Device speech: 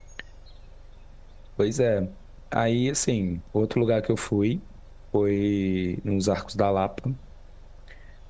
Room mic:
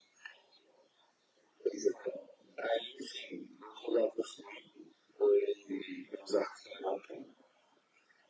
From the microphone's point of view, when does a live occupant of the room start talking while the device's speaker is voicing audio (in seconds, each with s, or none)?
none